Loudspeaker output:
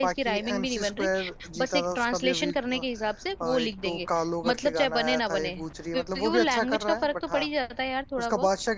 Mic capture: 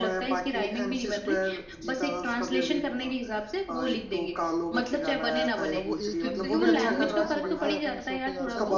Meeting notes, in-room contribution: present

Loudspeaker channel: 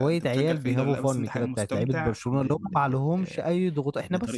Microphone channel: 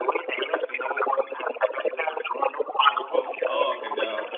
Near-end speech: present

